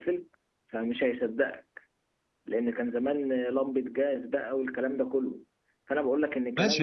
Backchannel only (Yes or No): No